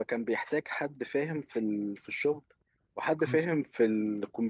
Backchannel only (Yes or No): Yes